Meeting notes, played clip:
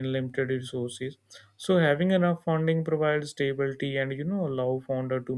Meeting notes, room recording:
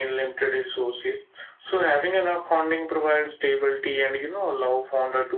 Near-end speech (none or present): none